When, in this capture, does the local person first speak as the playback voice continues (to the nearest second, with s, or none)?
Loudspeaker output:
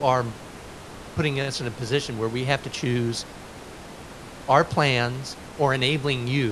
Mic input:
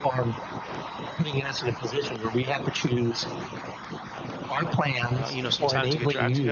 5 s